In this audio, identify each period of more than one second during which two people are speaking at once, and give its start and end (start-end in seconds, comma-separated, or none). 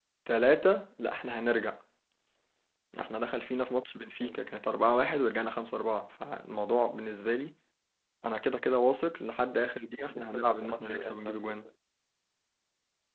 10.0-11.4